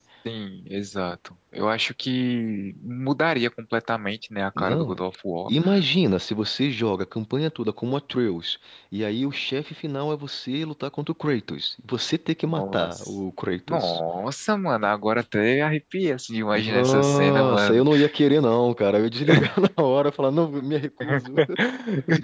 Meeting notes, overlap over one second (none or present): present